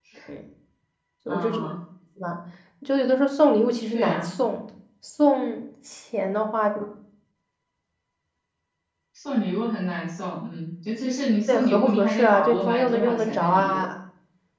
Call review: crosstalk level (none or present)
present